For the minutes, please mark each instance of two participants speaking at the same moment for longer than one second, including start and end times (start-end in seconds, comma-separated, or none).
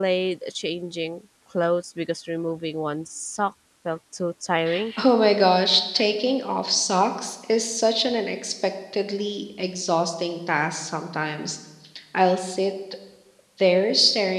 none